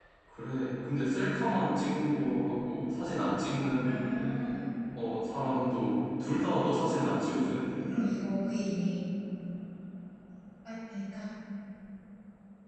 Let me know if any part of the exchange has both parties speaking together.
No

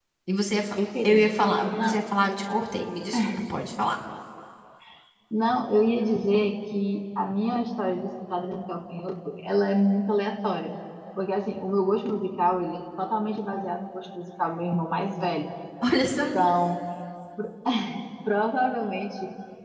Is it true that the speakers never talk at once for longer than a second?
Yes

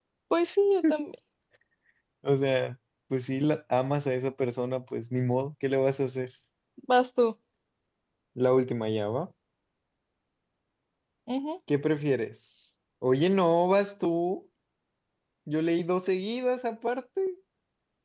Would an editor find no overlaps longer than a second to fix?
Yes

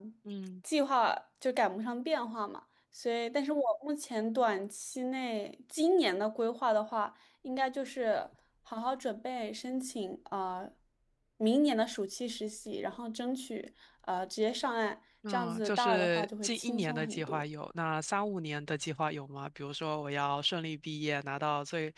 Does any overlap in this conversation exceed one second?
Yes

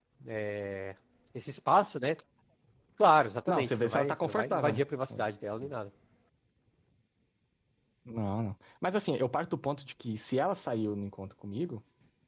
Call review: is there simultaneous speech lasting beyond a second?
Yes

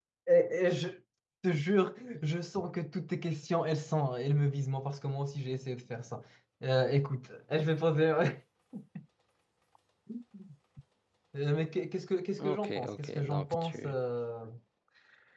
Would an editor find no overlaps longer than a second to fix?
No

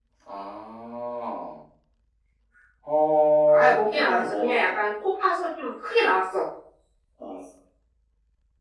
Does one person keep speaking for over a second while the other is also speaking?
Yes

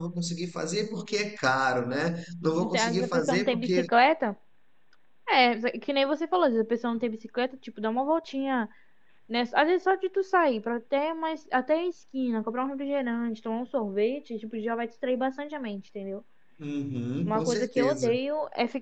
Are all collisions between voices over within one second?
No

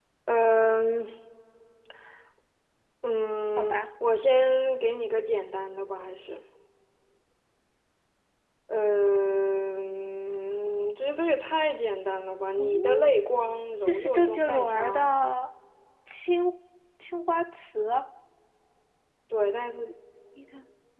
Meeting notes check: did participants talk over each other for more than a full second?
Yes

